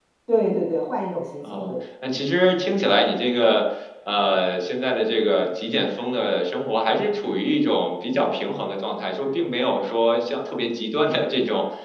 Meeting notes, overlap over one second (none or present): none